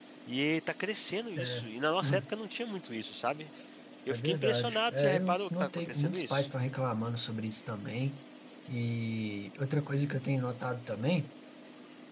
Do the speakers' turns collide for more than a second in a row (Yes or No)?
Yes